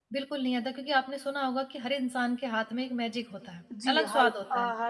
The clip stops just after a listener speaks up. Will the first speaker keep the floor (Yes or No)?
No